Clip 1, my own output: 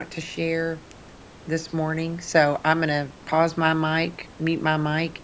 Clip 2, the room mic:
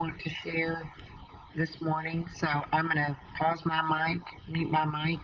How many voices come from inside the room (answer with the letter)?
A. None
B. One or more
A